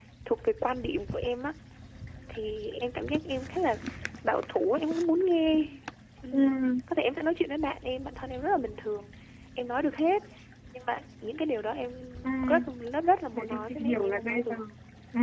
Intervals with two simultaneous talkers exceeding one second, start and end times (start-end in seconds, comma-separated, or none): 13.3-14.6